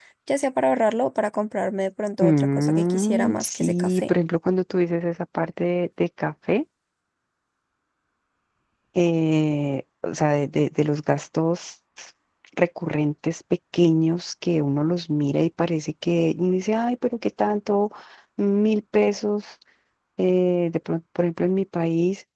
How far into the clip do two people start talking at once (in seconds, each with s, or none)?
2.2 s